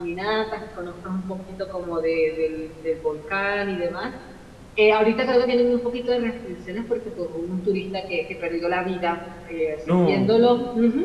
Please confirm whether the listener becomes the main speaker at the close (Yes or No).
No